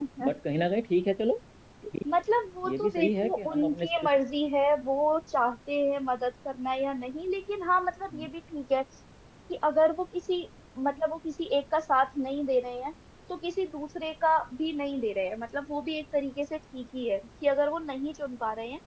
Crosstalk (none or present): present